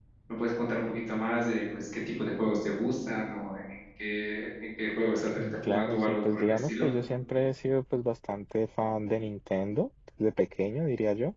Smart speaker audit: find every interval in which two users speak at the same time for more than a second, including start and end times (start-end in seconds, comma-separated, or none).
5.4-6.9